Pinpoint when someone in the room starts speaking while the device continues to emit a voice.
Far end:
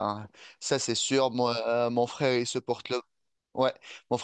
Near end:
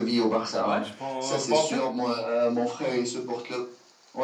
0.6 s

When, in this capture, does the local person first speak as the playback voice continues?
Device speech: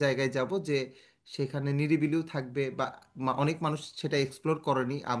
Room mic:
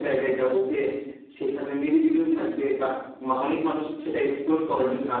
none

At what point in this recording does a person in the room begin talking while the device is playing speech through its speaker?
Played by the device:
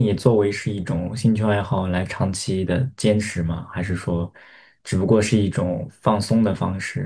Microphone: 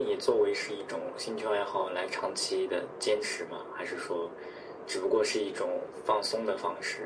none

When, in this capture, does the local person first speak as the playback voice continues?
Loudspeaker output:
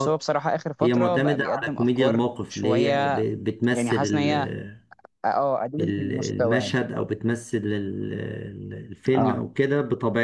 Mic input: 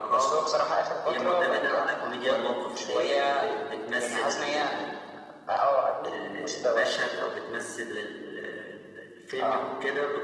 none

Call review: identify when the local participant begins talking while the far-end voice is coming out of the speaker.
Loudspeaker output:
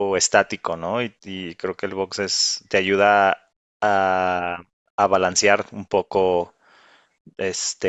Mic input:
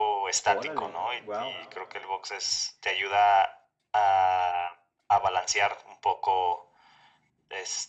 0.5 s

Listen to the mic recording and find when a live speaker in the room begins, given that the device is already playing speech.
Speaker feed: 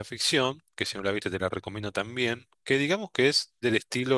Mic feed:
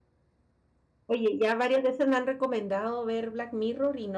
1.1 s

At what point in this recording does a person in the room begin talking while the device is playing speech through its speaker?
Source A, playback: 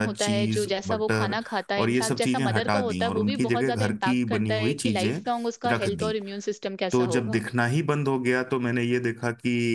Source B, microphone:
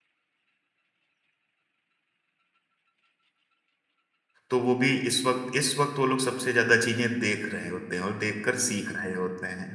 4.5 s

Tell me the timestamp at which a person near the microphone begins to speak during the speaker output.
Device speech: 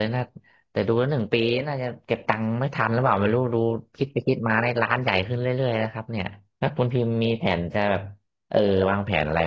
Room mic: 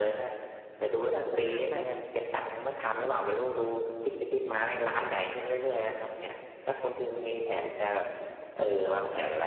1.1 s

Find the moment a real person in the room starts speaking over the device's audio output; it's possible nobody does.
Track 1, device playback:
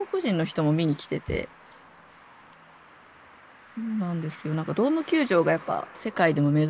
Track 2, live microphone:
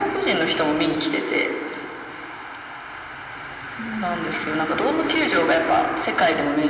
none

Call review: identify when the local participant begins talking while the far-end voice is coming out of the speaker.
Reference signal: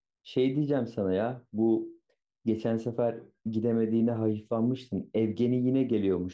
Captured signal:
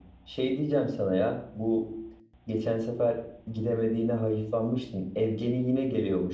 none

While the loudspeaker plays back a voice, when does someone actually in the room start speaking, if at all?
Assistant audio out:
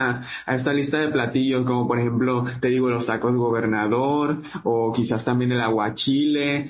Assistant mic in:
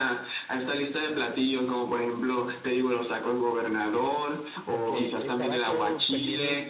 4.7 s

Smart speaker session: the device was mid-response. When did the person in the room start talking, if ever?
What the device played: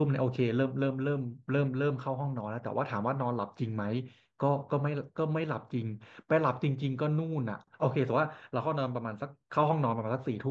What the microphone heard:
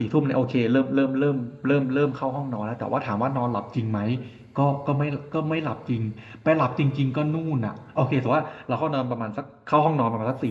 none

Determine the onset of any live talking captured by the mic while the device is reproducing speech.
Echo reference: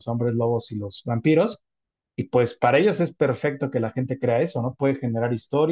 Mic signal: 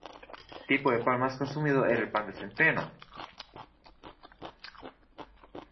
0.7 s

